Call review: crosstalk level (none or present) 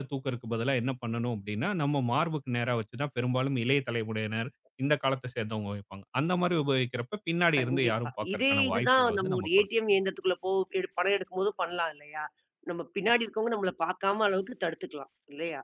present